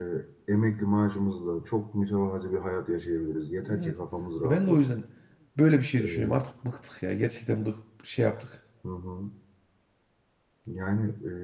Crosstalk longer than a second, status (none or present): none